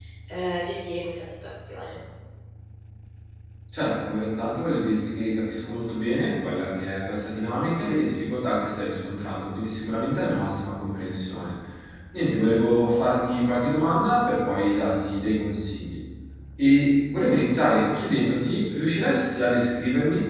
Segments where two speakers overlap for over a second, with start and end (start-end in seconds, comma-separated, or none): none